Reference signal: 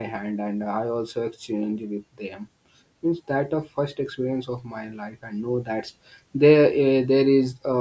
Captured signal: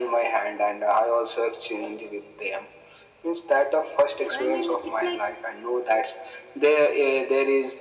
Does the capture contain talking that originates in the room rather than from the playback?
Yes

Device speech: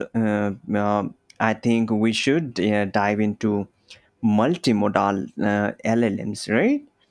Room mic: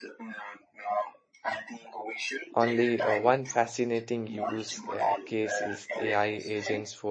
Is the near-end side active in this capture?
Yes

